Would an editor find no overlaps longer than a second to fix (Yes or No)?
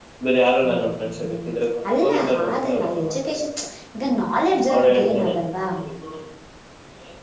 No